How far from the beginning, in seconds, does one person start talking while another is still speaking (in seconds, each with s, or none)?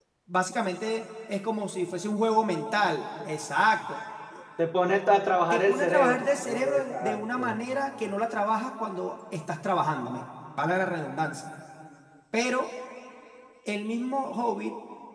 5.5 s